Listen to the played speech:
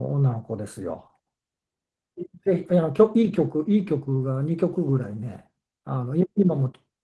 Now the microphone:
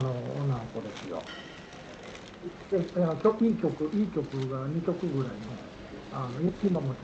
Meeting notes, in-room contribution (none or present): none